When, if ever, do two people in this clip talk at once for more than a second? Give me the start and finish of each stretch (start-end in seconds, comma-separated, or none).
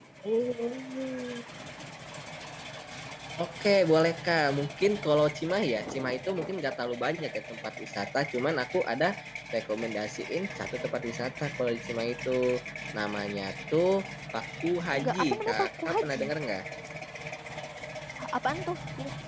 15.0-16.2